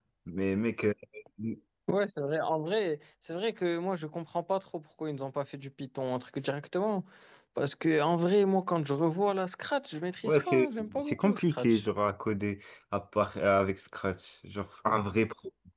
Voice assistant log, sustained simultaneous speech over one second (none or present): present